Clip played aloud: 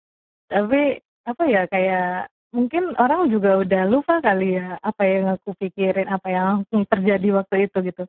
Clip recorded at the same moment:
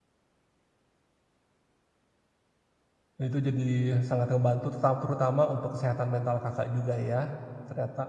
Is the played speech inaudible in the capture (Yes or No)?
Yes